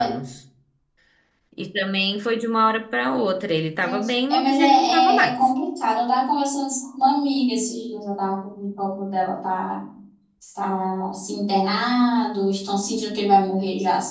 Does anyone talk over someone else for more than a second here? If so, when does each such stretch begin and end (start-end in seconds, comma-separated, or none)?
3.8-5.4